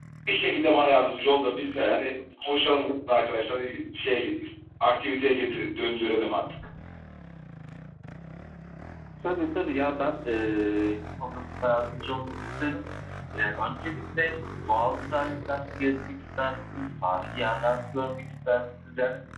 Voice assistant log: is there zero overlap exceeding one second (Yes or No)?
Yes